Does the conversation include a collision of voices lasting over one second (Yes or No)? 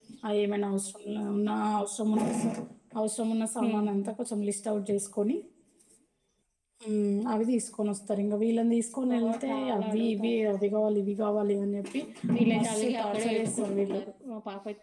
Yes